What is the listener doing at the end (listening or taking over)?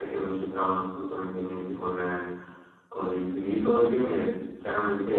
listening